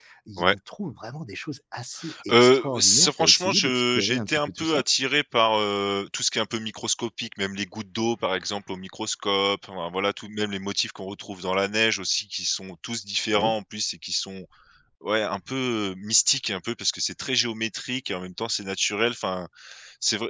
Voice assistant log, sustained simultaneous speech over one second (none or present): present